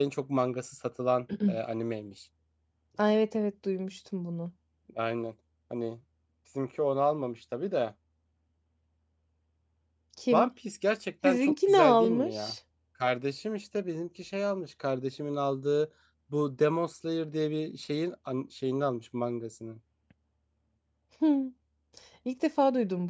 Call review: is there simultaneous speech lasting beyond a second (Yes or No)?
Yes